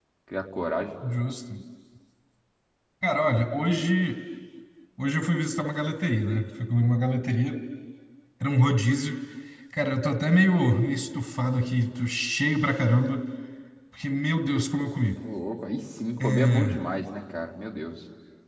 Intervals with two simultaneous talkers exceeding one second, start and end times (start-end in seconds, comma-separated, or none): none